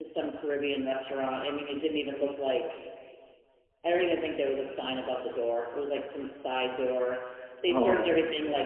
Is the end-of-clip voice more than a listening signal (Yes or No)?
No